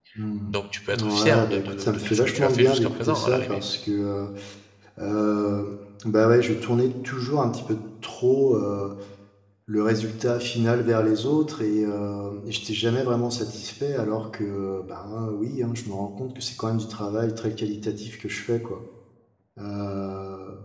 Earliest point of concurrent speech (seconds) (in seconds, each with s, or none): 0.9 s